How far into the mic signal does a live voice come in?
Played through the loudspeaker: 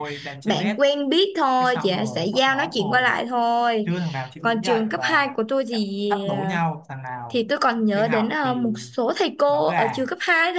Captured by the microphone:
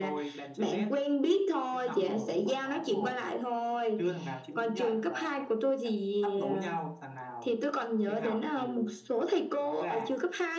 none

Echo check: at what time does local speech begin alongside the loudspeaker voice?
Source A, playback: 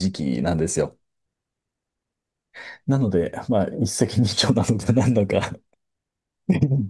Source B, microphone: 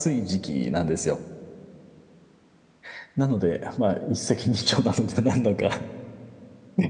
none

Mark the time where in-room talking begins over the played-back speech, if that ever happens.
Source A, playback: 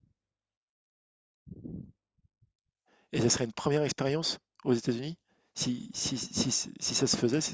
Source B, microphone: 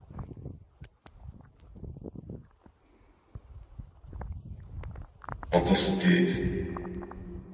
5.5 s

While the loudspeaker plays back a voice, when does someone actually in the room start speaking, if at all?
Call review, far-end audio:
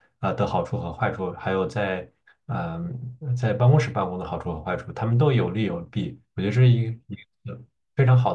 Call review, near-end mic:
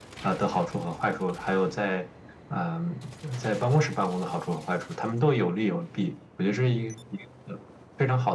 none

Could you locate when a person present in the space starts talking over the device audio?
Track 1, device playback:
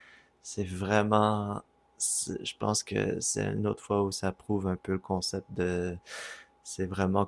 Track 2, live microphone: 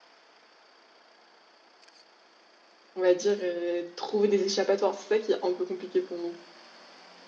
3.0 s

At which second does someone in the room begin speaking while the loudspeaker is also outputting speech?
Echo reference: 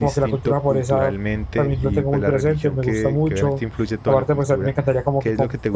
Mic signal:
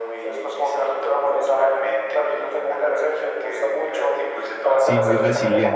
4.7 s

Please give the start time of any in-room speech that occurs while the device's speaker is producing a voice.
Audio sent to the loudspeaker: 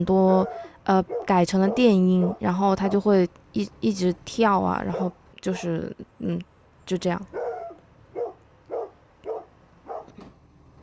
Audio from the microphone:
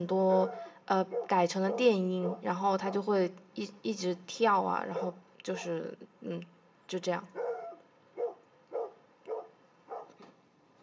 none

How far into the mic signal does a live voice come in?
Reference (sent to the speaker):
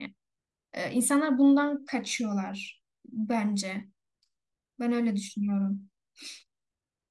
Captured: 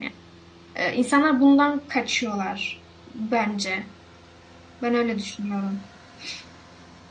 none

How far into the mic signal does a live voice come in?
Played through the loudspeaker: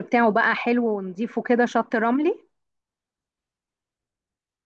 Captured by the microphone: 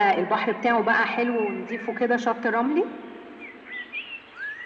none

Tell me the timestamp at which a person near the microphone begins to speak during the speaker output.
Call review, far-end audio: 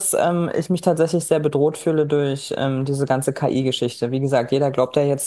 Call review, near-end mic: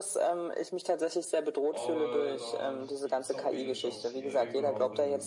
1.7 s

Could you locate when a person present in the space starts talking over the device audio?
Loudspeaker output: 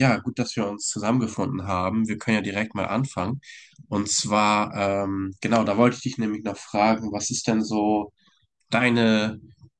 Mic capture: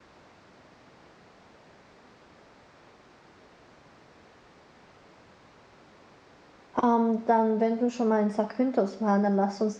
6.8 s

